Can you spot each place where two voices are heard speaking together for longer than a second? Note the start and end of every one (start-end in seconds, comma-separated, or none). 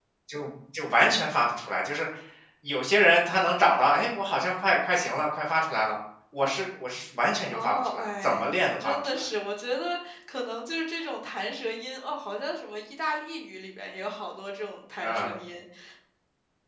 7.5-9.2